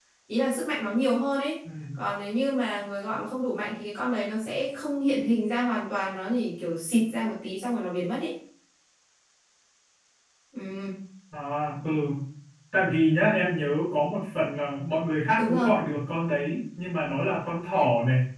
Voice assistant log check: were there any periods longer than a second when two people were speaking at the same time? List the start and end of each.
none

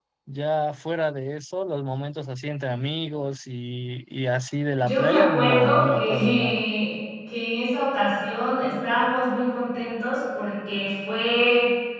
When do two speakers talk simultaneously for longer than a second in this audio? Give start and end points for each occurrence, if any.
4.8-6.6

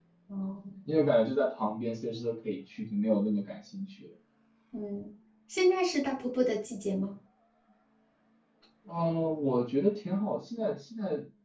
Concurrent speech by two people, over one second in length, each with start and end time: none

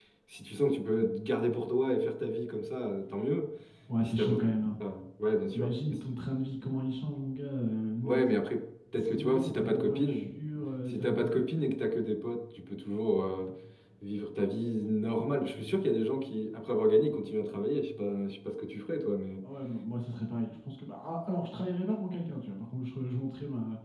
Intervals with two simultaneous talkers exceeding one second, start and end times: 9.0-10.3

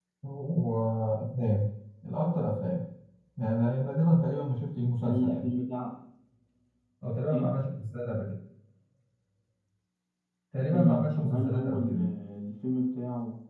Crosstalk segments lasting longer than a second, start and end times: 10.7-12.0

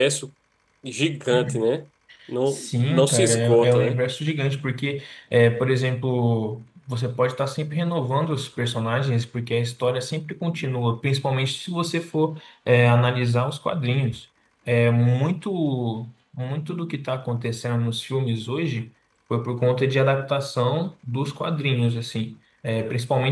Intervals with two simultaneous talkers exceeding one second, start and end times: 2.5-4.0

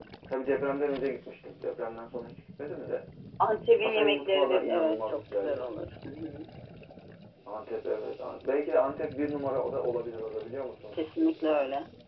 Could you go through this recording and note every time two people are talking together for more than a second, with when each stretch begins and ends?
3.8-5.7

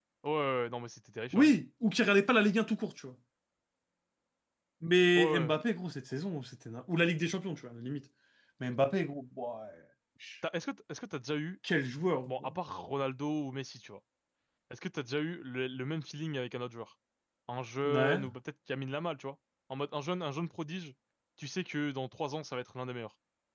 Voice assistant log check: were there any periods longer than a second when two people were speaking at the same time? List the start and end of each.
none

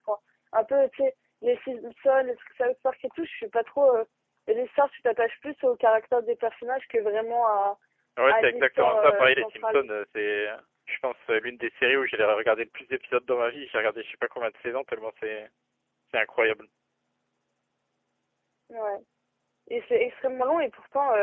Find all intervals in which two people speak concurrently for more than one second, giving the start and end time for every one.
8.3-9.9

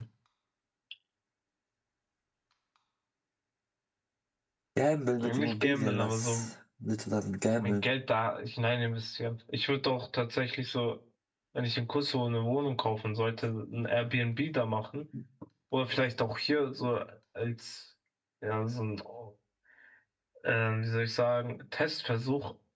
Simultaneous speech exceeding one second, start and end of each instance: 5.2-6.5

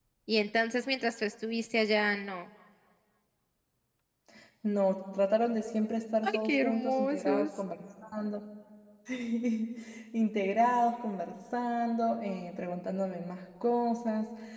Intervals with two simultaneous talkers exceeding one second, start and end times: 6.2-7.5

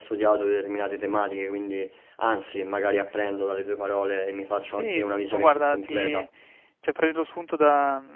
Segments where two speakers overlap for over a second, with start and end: 4.6-6.2

